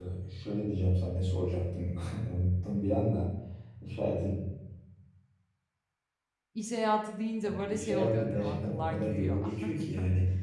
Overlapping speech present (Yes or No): Yes